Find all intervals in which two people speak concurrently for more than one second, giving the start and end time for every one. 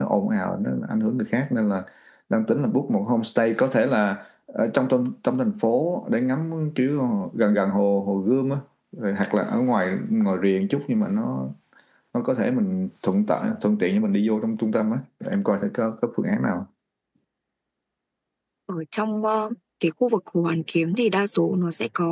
none

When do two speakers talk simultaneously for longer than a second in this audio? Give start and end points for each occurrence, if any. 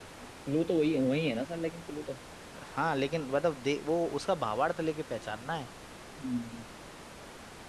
none

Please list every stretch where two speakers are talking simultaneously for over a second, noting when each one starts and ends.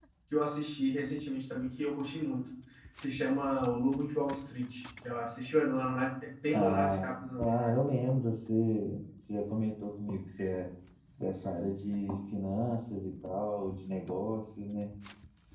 6.5-7.8

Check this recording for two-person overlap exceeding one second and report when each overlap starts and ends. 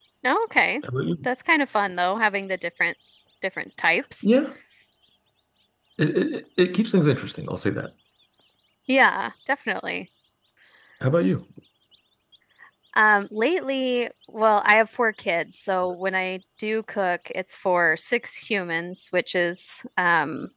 none

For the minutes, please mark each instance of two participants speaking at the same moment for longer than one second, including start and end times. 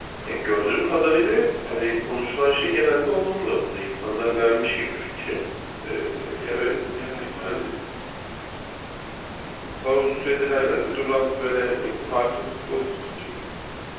none

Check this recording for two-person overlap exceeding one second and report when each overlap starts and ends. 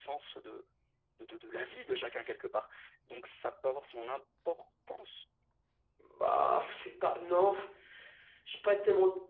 none

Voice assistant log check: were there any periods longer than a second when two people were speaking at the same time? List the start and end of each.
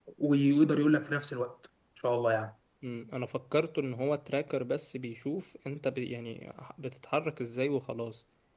none

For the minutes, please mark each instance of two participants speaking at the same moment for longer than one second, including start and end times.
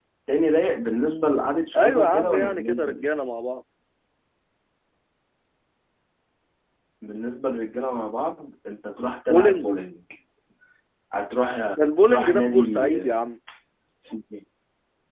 1.8-3.1, 11.8-13.1

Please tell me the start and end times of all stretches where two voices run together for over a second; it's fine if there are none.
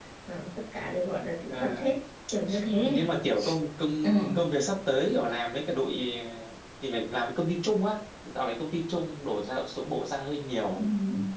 none

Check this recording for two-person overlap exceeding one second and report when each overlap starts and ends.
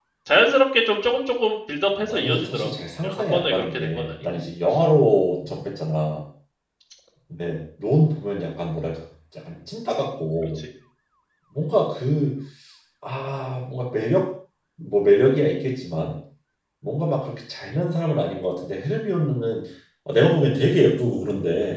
2.0-4.2

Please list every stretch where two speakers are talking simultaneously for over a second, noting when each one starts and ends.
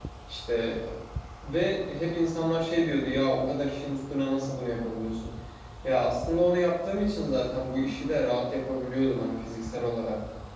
none

